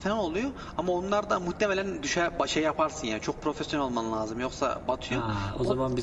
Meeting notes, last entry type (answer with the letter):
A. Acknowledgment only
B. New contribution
B